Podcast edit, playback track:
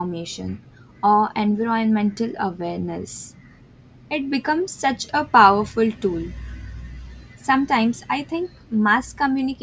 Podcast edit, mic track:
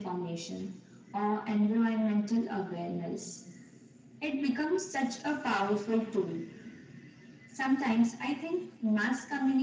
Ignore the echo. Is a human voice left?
No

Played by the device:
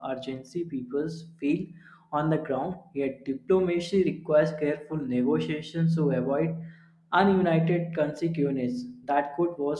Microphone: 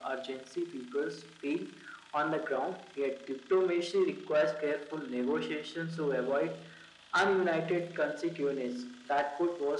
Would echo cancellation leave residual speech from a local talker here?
No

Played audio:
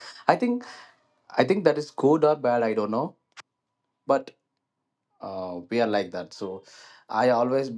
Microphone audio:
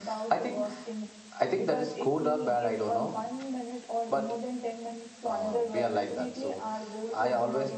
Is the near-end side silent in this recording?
No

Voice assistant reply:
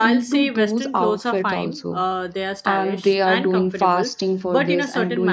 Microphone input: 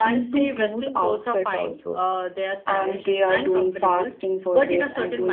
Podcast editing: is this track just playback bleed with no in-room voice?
Yes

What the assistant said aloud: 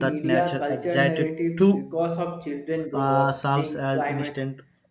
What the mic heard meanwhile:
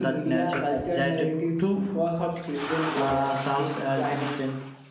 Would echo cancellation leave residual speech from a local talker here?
No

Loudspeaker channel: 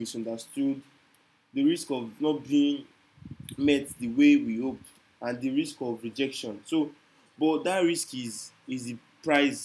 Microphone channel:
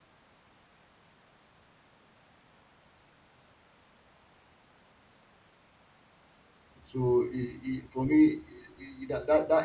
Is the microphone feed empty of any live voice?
No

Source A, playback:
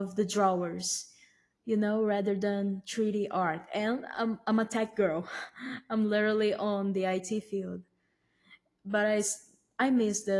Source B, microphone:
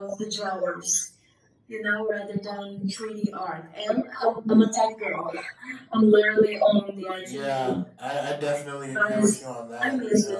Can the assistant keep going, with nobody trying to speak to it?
No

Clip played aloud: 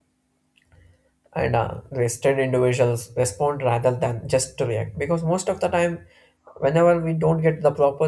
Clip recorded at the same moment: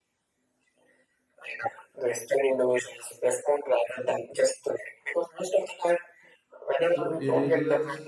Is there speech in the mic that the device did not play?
Yes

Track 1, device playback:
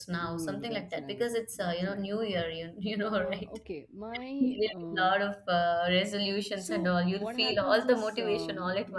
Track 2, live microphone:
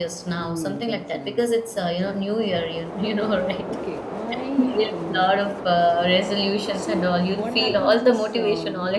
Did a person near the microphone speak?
No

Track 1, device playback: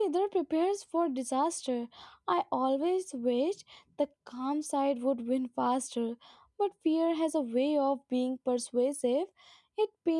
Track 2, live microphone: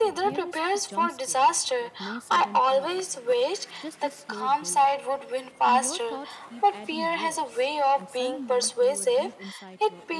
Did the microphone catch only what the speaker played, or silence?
No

